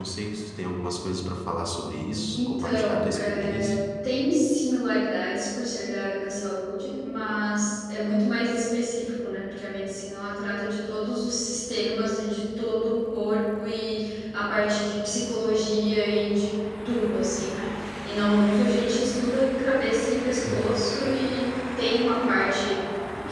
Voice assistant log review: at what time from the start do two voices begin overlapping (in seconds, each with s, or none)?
2.3 s